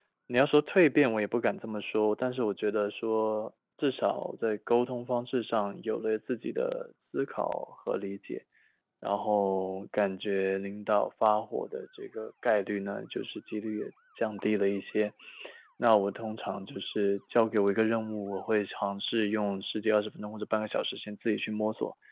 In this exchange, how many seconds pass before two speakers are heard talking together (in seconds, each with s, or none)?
none